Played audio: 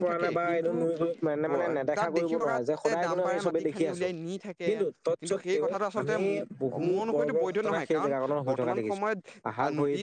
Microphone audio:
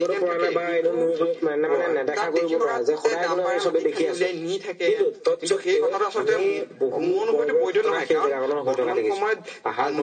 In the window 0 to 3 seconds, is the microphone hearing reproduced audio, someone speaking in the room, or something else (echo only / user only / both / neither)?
echo only